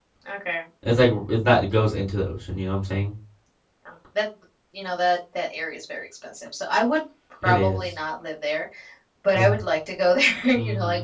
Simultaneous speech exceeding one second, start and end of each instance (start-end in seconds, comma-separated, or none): none